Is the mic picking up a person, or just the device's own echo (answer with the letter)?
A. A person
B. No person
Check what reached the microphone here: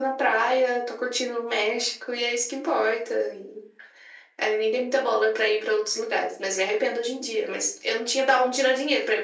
B